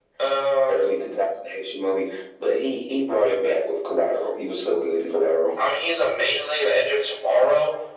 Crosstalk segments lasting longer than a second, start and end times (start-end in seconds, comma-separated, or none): none